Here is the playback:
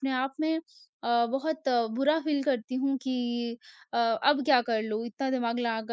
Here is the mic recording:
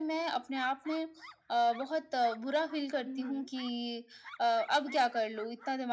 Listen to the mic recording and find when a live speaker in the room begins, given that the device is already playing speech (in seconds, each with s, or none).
3.0 s